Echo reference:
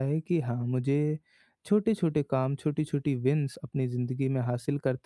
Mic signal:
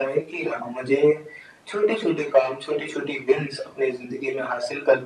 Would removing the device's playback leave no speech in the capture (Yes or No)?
Yes